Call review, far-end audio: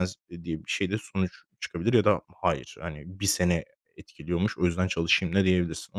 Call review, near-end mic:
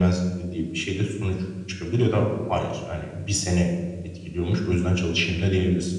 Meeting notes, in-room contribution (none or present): none